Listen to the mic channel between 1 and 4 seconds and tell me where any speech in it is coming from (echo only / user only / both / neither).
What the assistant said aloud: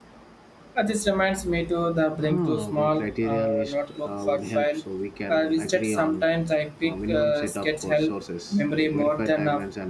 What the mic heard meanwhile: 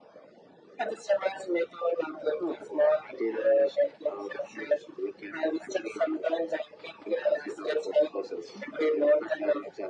echo only